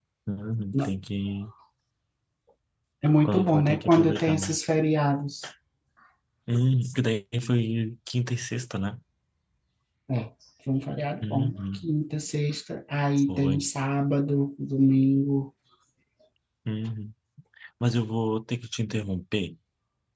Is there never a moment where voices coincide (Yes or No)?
No